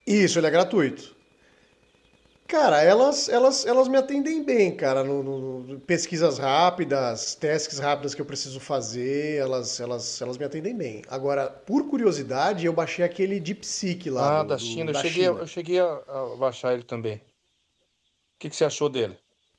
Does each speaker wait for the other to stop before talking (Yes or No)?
No